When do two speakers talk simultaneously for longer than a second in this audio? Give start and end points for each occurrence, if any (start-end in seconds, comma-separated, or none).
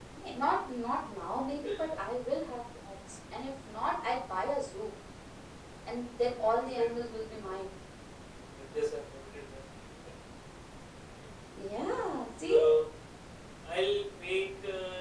none